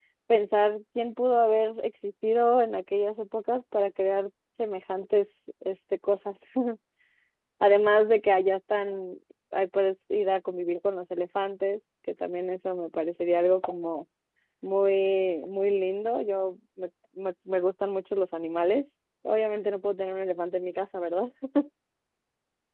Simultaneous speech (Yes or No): No